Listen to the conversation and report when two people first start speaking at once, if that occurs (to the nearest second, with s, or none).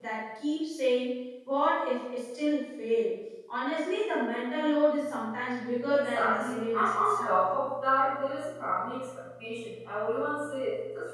6 s